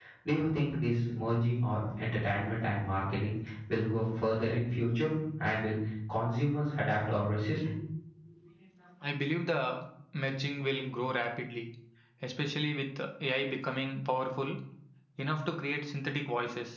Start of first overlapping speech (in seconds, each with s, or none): none